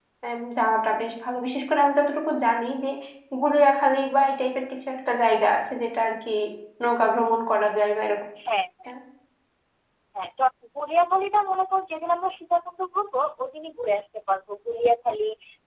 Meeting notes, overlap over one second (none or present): none